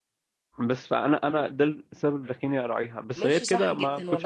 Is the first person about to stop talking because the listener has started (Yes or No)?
Yes